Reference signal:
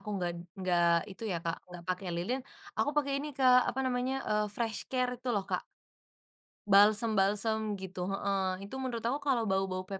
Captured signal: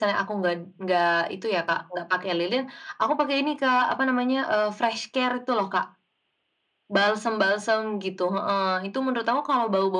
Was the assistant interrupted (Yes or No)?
No